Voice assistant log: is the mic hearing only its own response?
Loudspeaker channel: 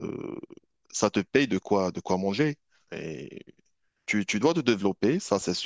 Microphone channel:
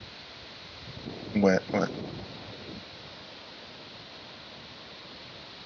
No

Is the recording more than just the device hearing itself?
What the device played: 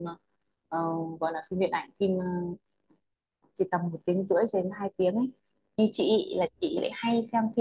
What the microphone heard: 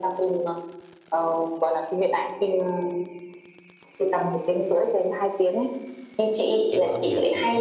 Yes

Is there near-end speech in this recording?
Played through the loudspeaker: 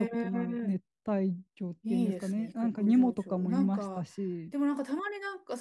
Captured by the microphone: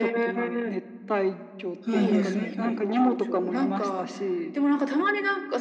Yes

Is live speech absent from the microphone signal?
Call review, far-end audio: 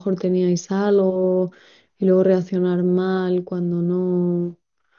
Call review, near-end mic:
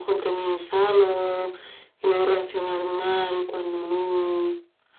Yes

